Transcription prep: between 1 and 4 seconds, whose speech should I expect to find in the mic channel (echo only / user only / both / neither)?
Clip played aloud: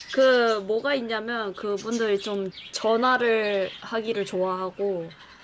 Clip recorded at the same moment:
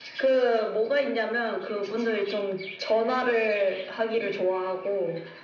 echo only